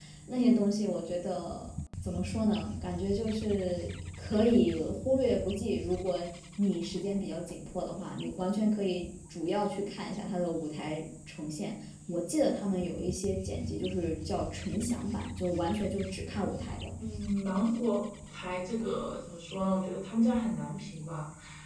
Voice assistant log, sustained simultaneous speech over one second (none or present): none